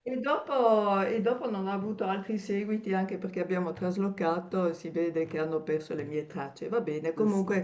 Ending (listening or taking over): listening